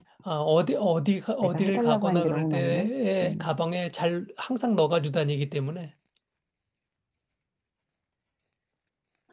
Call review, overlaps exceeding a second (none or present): present